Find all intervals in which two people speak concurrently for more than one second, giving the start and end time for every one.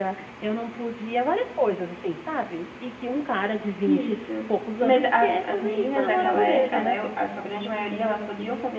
4.8-7.0

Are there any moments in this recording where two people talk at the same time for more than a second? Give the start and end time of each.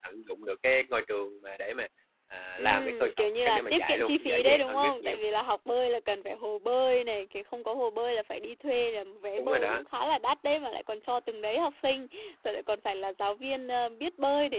2.6-5.2

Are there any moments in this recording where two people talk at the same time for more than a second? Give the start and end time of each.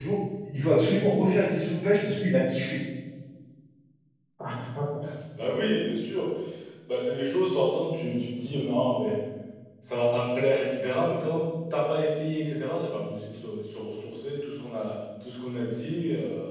none

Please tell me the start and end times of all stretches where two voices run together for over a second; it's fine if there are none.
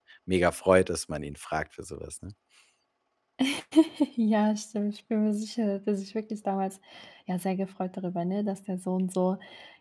none

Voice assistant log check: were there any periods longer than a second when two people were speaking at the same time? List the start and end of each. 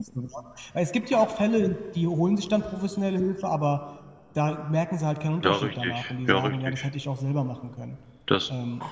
5.4-6.8

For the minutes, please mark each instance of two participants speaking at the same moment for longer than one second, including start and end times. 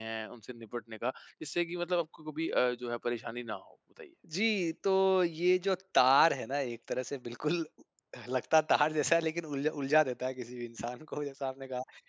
none

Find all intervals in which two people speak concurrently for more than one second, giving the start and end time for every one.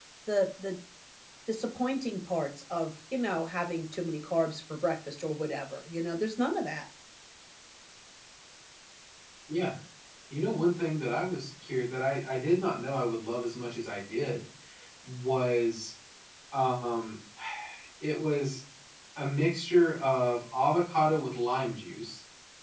none

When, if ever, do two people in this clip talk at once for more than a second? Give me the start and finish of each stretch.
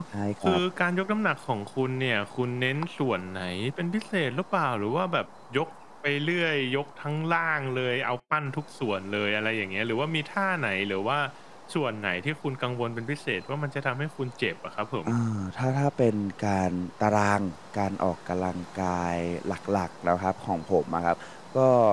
none

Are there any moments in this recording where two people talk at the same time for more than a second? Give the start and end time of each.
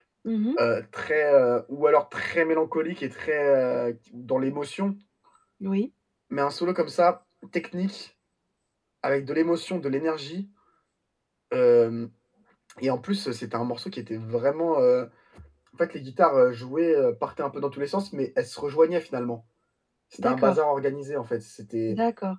none

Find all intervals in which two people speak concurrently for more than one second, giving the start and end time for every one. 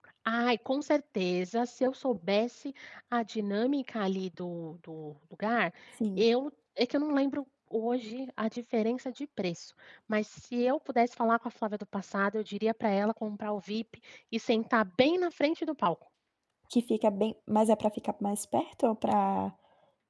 none

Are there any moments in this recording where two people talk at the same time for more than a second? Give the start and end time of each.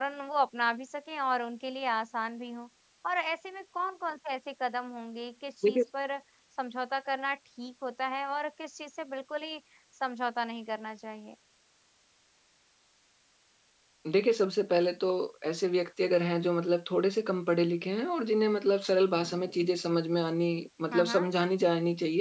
none

